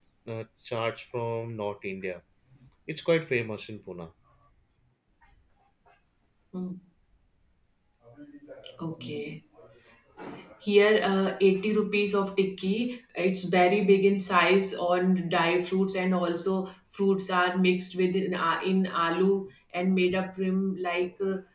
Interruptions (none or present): none